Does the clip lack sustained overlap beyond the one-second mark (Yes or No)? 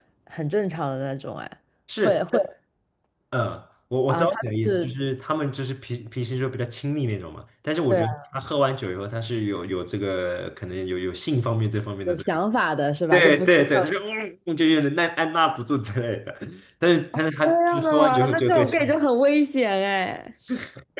No